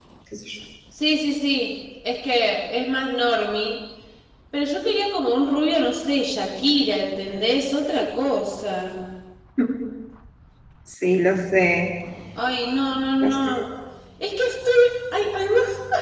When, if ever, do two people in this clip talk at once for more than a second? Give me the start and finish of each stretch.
none

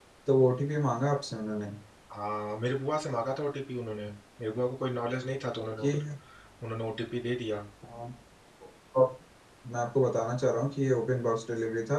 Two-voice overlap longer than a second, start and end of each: none

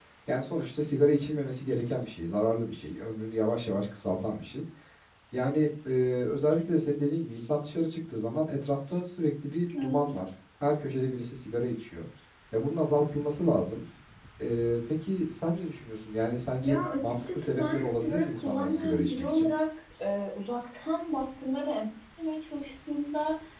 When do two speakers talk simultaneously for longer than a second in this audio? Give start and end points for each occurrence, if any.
16.6-19.5

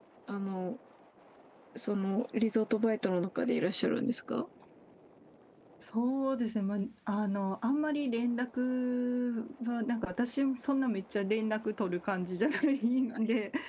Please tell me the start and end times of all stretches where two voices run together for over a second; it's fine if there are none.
none

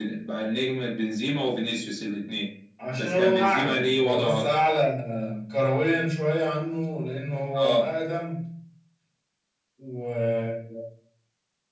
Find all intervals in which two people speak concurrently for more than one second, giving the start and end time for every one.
3.0-4.5

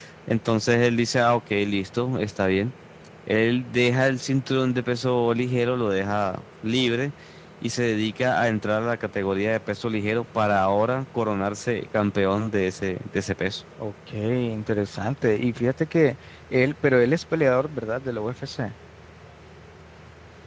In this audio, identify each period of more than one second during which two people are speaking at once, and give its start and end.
none

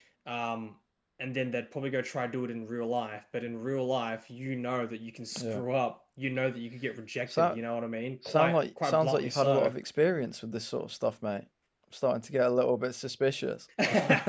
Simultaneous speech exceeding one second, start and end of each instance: 8.2-9.7

